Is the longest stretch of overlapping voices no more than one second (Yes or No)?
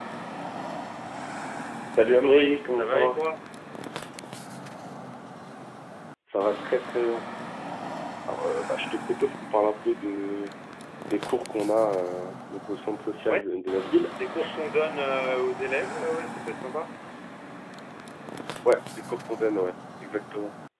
No